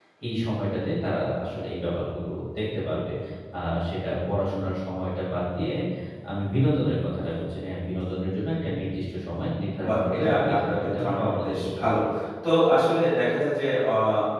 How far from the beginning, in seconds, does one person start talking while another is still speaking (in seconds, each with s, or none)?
9.8 s